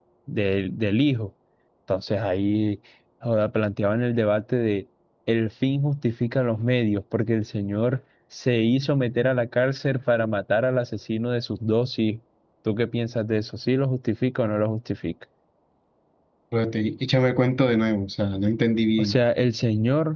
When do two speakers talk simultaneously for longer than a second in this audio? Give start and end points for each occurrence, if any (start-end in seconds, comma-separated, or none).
none